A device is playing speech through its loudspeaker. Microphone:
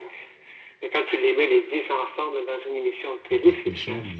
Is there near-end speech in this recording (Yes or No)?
Yes